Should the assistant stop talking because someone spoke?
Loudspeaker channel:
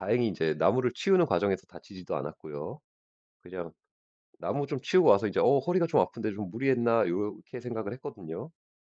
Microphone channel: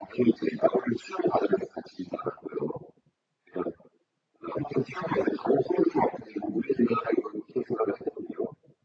No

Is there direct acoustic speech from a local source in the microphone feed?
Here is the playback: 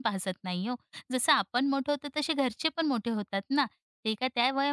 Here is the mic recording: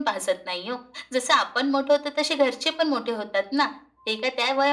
No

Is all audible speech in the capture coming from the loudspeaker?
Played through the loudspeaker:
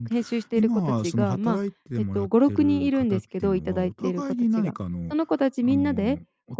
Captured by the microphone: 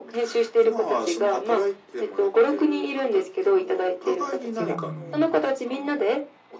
No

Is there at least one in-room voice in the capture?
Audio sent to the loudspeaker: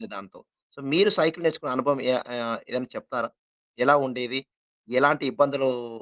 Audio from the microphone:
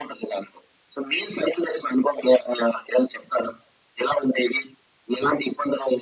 No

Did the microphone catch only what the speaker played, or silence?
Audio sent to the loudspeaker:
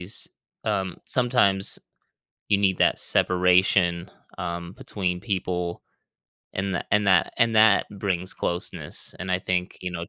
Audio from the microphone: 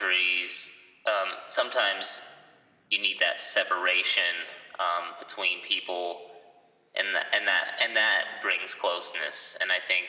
Yes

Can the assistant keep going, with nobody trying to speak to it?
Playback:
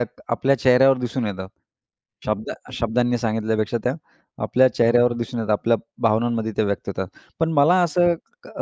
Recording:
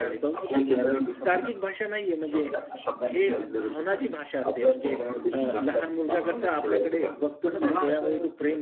No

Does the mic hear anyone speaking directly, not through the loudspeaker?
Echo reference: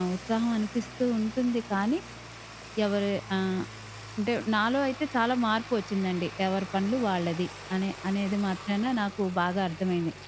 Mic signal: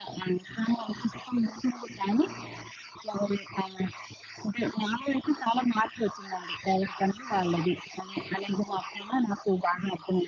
No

